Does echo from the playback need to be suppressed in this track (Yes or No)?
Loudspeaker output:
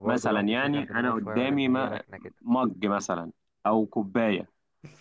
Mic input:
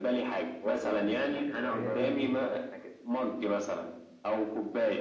Yes